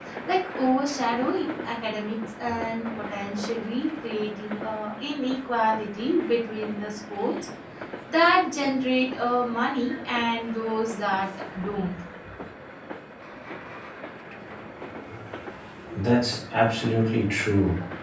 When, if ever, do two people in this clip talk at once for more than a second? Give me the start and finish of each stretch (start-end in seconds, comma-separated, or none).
none